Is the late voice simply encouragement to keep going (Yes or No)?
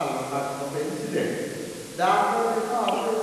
Yes